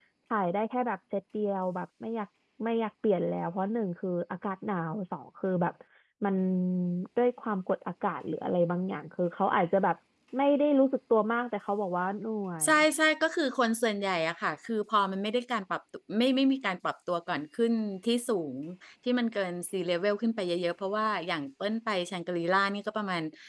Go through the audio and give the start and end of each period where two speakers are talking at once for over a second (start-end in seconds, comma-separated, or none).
none